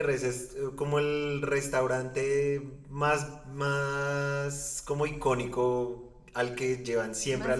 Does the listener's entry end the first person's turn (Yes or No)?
No